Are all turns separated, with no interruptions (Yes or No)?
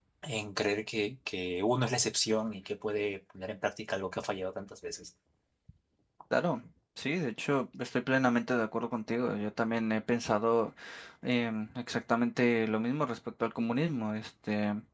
Yes